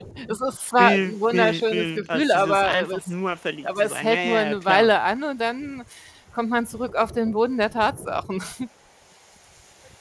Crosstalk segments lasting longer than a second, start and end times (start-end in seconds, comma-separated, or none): 0.8-3.1, 3.6-4.9